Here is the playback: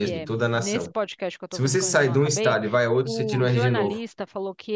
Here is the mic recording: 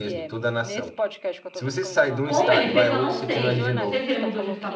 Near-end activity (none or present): present